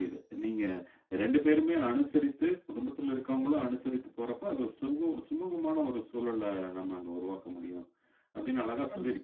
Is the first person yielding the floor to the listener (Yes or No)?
No